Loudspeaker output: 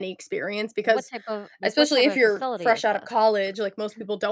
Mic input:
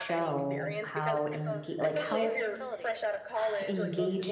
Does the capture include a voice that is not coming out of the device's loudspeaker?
Yes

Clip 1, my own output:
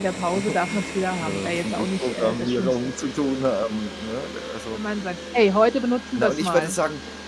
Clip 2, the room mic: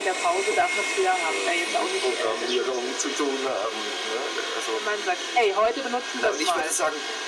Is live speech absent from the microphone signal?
Yes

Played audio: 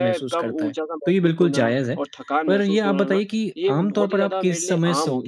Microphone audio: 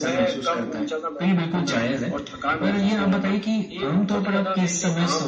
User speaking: No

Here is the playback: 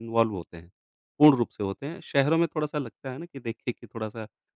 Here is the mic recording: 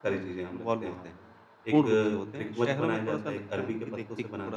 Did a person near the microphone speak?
Yes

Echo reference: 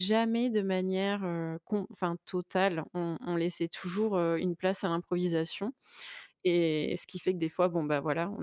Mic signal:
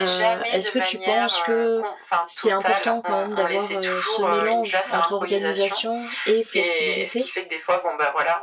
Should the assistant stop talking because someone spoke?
Yes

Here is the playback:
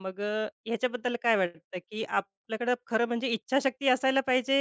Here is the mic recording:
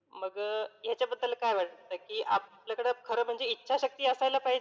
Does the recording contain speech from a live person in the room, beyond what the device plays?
No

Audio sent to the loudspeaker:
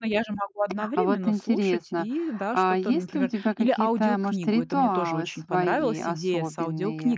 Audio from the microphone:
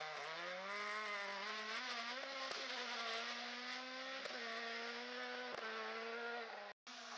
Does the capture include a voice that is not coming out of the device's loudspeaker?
No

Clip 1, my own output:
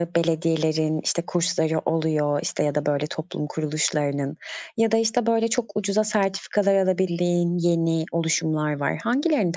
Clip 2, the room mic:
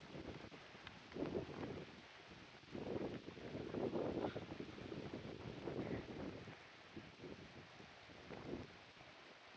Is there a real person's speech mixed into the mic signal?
No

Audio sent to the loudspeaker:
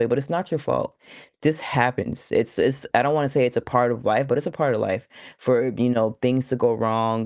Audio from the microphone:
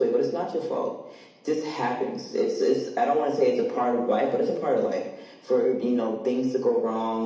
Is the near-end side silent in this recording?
Yes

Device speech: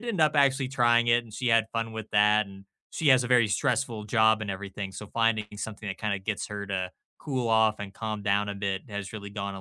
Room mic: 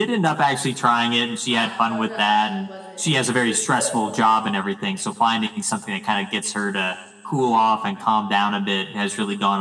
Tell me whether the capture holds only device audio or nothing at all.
No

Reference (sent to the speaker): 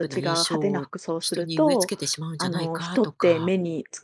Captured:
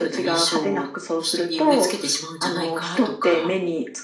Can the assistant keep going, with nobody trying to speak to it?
Yes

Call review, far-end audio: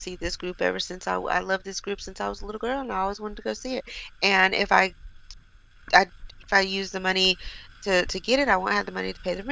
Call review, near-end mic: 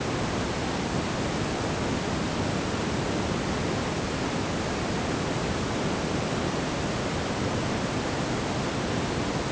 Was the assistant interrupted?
No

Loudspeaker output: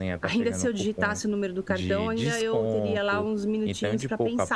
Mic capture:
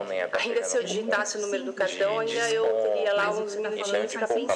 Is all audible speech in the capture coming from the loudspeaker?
No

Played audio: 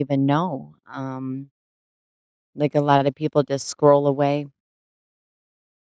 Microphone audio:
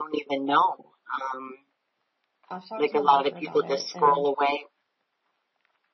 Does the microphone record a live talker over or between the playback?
Yes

